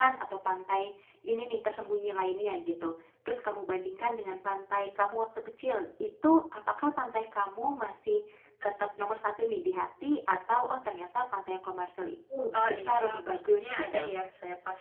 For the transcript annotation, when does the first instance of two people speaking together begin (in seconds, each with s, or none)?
12.5 s